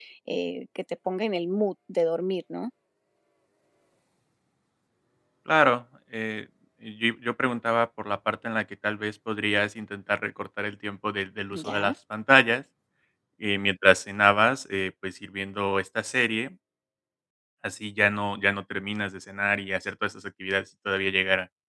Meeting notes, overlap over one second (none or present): none